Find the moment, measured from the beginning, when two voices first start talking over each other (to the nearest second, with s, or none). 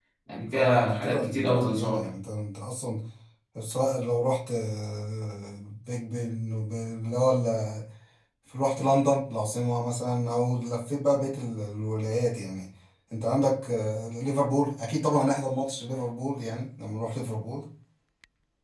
1 s